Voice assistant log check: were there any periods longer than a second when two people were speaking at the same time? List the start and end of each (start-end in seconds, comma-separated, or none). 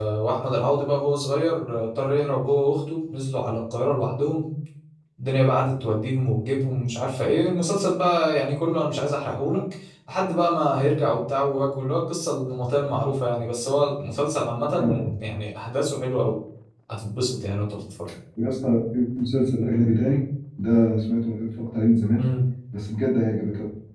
none